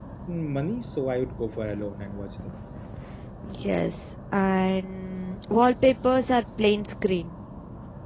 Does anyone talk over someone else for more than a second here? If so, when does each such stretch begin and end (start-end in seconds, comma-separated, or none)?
none